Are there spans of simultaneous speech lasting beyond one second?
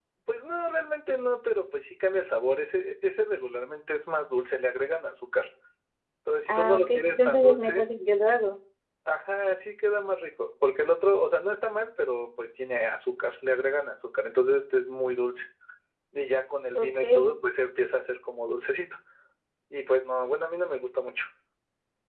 Yes, from 6.5 s

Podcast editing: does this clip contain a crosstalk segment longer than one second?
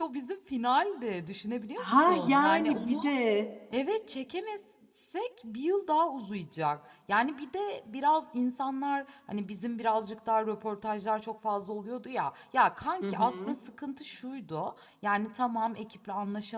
Yes, from 1.8 s

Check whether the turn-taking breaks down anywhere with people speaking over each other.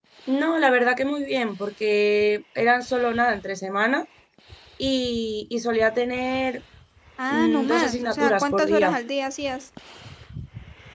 Yes, from 7.3 s

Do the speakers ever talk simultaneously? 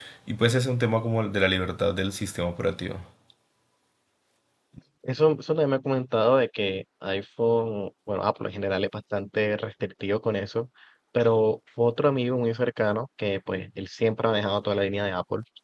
No

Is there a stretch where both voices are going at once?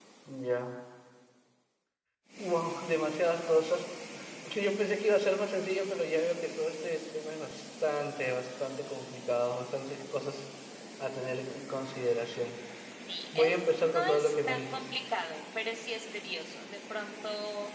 Yes, from 13.4 s

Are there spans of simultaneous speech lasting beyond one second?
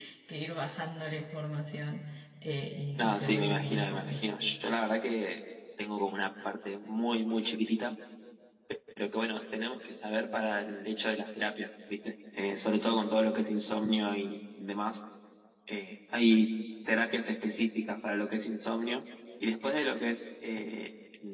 Yes, from 3.0 s

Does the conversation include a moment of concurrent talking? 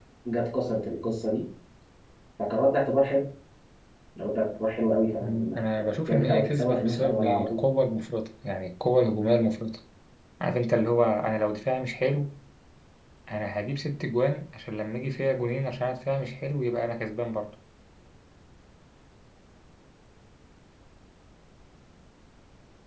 Yes, from 5.2 s

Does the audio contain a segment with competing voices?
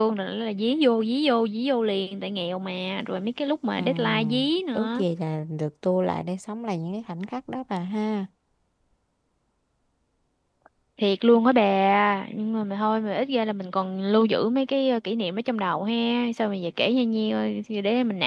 Yes, from 3.8 s

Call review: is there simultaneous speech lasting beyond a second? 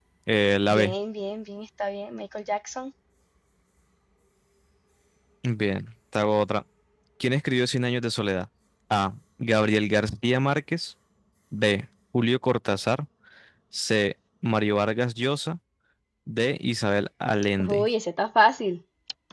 No

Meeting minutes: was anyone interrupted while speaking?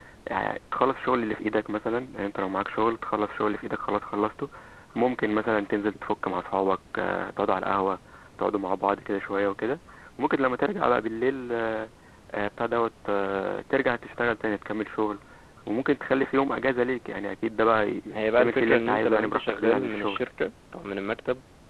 Yes, from 18.1 s

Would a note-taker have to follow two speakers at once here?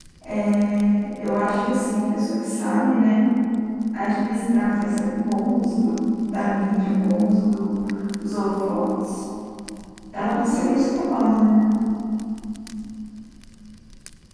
No

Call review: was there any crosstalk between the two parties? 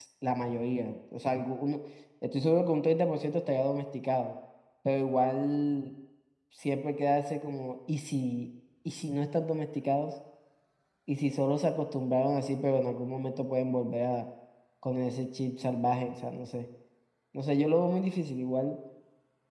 No

